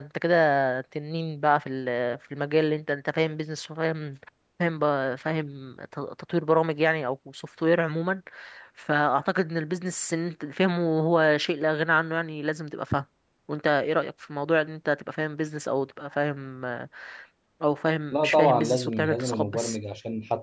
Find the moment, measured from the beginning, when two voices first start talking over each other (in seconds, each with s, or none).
18.1 s